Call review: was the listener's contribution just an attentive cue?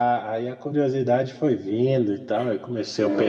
No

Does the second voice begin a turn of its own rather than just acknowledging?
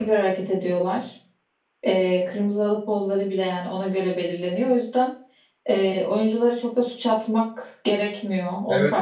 Yes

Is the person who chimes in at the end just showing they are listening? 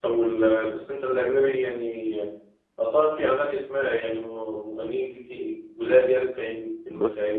No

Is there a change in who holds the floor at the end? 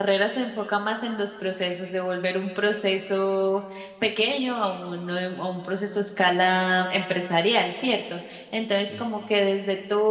No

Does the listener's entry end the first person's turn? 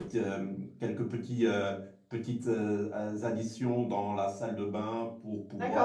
Yes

